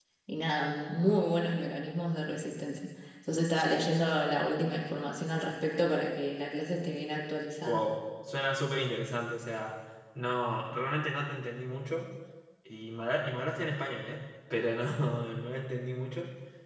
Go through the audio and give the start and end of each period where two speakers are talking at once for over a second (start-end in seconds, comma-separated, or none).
none